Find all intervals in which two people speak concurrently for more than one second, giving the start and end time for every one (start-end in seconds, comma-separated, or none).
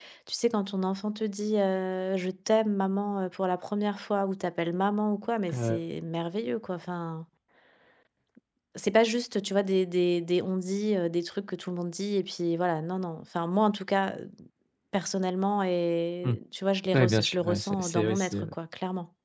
16.9-18.5